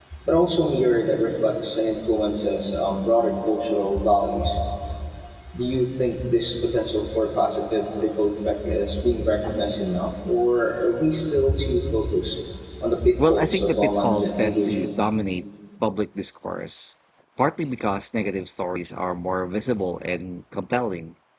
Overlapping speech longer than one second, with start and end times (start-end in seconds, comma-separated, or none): 13.2-14.7